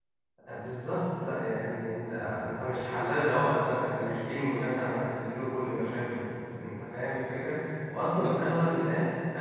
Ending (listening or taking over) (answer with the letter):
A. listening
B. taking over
A